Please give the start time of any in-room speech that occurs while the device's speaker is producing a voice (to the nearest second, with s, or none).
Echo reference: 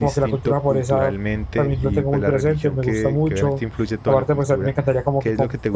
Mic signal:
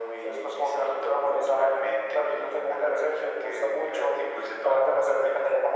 none